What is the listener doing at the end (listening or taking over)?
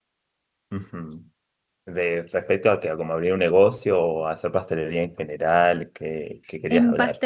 taking over